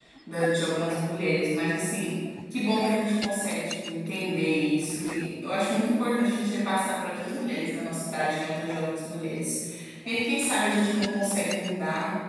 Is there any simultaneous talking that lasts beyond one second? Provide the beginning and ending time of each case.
none

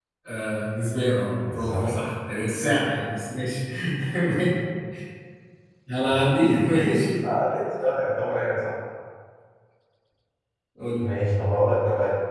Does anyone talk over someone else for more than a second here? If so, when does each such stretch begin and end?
none

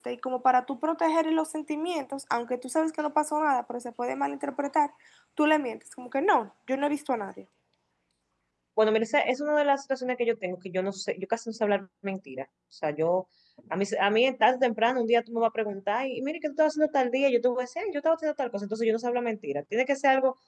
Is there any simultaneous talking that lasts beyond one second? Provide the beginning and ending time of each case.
none

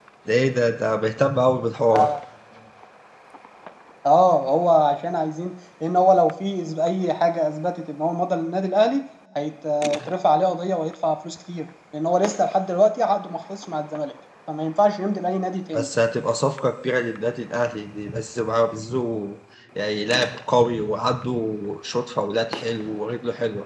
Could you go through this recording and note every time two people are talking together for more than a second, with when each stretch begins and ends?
none

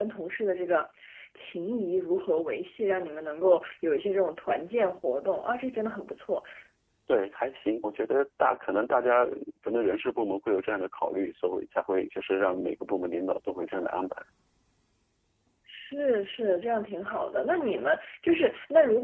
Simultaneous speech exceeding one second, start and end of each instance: none

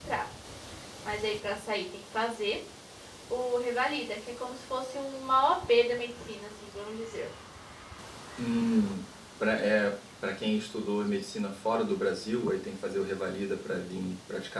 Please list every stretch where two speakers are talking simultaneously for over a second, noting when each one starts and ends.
none

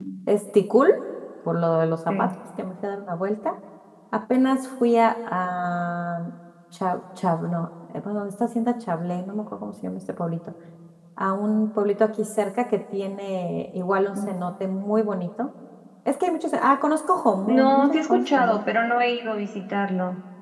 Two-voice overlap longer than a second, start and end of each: 17.5-18.7

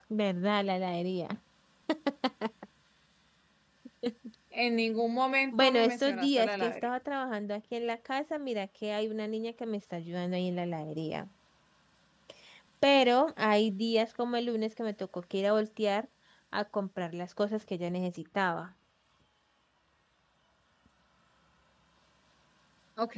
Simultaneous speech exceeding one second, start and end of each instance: 5.5-6.9

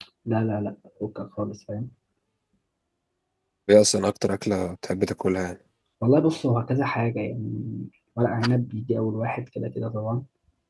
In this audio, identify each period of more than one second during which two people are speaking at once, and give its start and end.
none

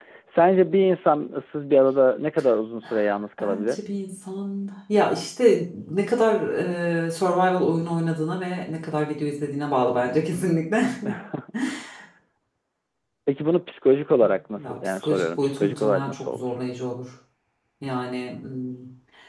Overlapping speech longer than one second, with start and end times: 14.6-16.5

